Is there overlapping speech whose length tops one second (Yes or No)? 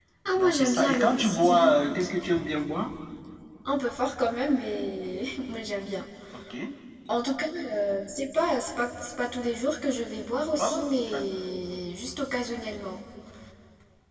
Yes